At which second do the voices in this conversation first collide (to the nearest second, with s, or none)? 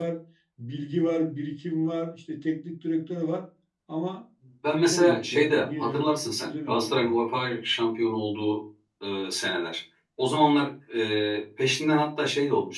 5 s